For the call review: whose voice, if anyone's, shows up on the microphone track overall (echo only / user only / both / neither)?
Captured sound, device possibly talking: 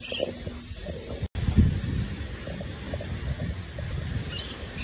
neither